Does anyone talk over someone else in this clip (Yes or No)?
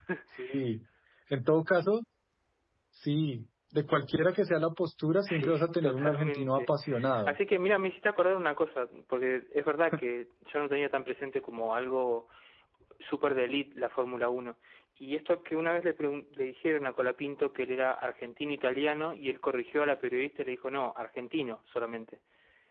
Yes